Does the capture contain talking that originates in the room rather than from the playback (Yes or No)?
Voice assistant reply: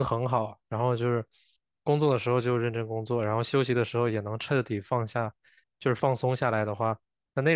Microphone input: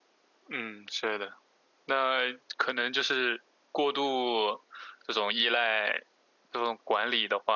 Yes